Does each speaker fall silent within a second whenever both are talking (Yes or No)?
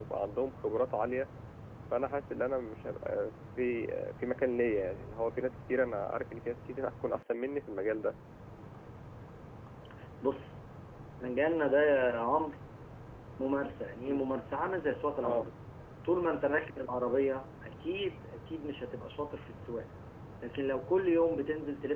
Yes